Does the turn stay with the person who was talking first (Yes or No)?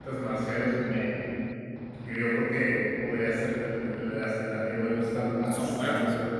Yes